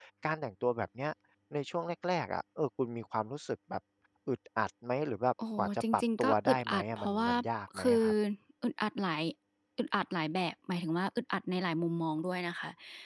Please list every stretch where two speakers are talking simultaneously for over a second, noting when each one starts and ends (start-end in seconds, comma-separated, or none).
5.6-7.3